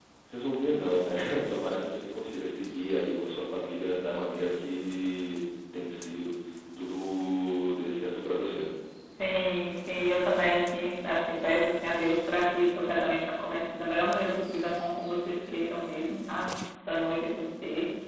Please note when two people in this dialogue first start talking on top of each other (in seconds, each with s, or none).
none